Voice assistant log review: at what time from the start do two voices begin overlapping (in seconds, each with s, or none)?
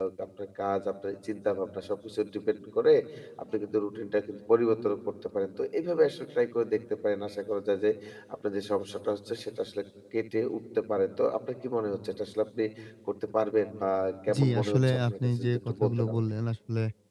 14.4 s